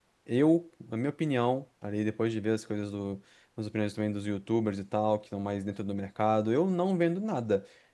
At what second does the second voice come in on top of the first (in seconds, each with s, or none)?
none